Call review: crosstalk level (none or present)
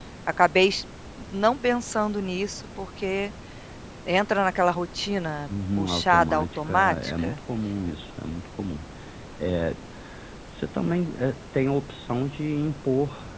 present